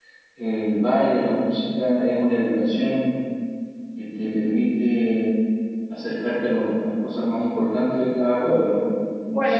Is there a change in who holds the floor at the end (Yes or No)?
Yes